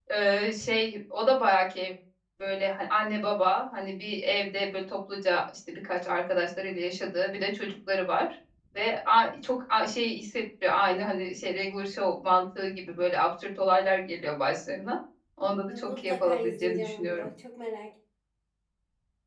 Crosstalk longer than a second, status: present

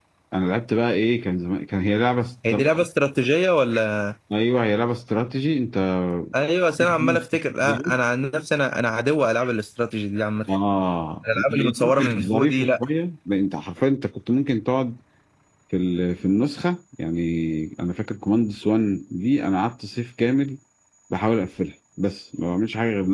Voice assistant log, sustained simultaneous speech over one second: present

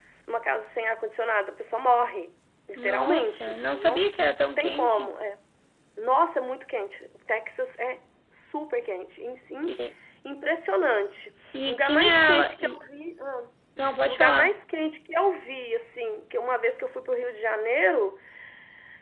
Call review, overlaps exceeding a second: present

